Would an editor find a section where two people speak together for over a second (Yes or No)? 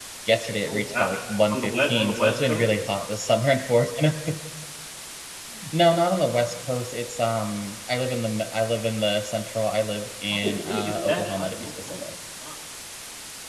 Yes